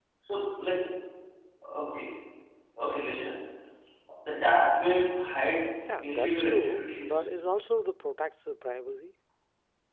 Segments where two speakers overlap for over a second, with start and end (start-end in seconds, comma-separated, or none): 6.0-7.2